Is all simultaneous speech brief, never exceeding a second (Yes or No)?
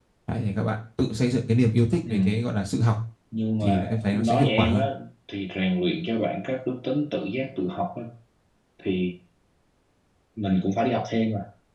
No